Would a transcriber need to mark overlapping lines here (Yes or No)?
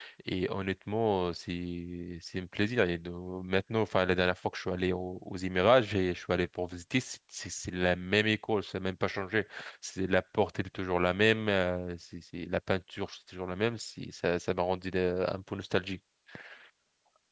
No